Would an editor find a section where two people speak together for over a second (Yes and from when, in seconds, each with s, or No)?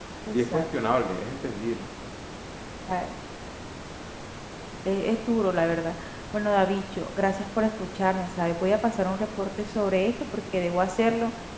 No